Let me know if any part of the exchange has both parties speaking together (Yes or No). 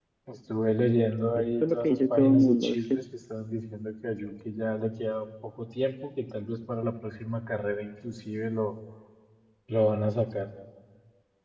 Yes